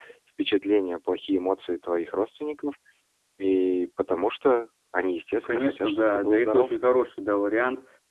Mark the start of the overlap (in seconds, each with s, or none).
5.3 s